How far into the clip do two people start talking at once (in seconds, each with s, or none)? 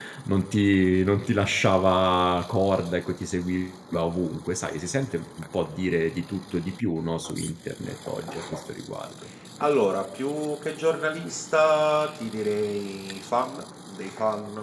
none